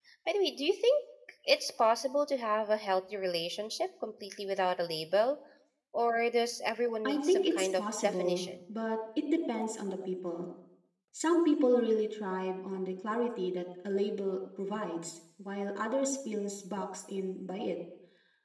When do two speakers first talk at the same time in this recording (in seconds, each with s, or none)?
7.0 s